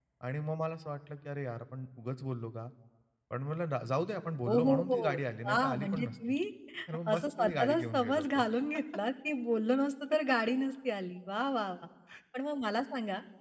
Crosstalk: present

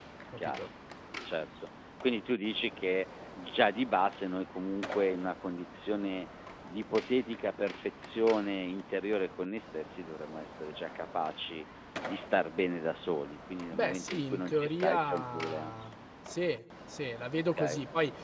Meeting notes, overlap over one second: present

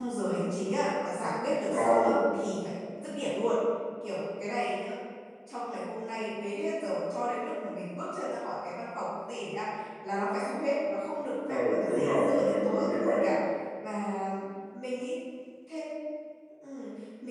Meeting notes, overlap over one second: present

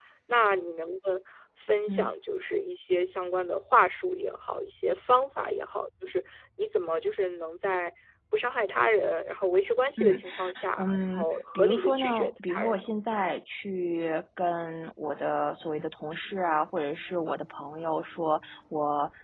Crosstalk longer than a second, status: present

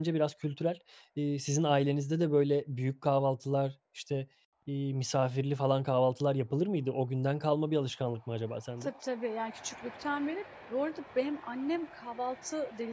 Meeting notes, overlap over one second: none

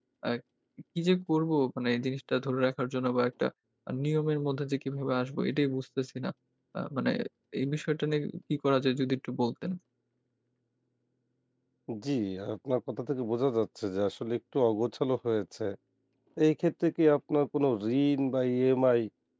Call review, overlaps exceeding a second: none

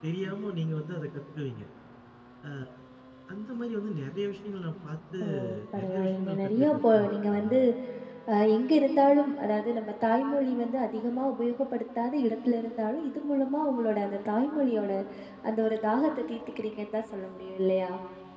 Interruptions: present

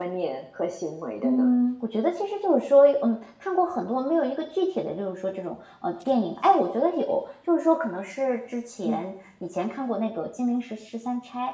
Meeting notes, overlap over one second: none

